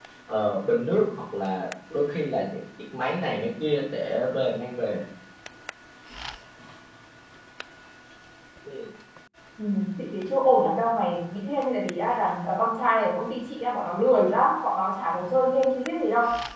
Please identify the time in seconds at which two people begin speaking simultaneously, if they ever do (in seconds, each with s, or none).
none